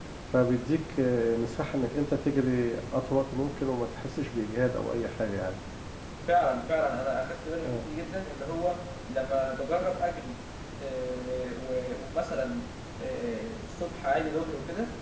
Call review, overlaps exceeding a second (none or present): none